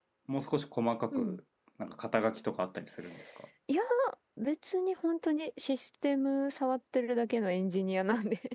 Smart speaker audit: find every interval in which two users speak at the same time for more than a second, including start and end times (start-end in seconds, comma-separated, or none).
none